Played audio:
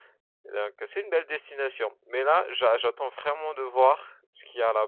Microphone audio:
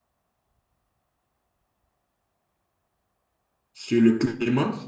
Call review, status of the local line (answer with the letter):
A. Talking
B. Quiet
A